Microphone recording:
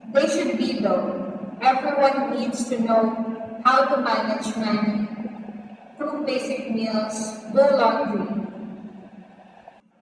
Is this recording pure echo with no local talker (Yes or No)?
Yes